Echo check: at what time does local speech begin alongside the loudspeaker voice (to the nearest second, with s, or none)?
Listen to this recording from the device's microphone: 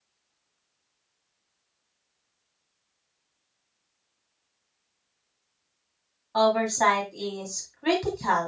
6 s